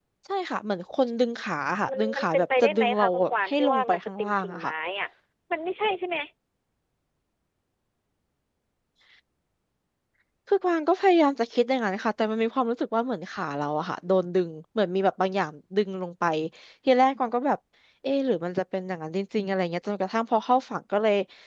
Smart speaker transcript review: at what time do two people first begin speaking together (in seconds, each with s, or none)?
1.8 s